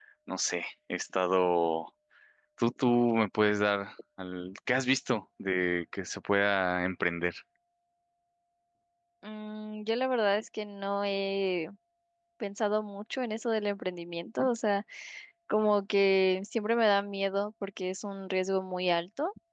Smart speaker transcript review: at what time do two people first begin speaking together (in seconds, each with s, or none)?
none